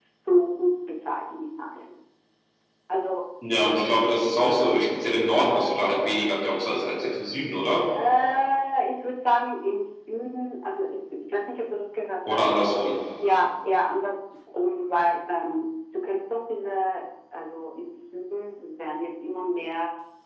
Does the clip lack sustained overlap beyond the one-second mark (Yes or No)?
Yes